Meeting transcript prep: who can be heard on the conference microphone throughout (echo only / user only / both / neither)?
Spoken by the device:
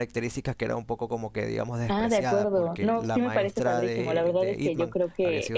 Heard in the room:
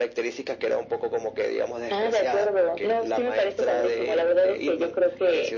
echo only